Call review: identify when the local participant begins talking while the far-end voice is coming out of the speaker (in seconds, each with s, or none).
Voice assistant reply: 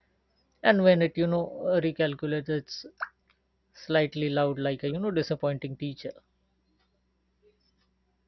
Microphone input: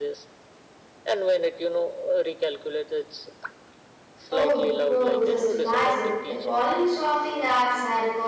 4.3 s